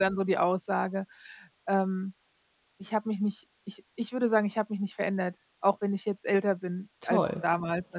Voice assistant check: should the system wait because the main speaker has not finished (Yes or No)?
Yes